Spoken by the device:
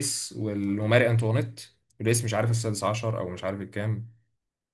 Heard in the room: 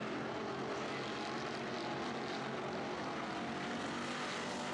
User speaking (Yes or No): No